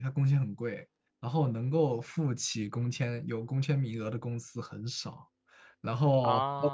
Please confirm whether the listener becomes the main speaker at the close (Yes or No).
No